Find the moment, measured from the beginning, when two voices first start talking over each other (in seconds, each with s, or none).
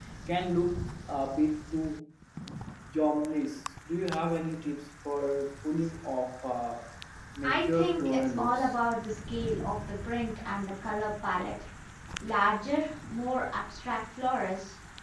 7.4 s